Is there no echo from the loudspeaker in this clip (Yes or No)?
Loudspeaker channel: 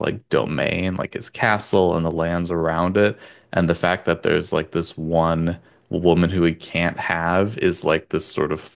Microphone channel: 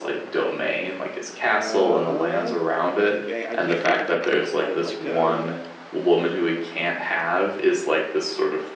No